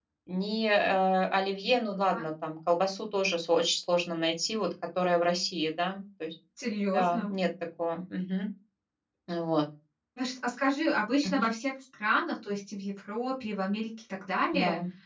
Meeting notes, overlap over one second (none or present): none